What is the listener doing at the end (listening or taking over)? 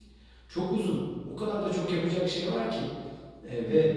listening